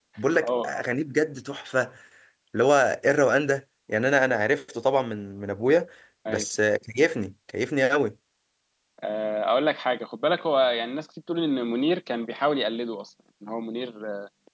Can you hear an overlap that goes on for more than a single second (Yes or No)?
No